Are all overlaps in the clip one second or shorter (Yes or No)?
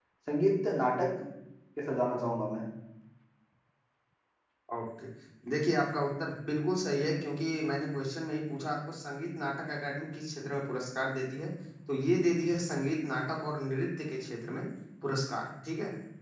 Yes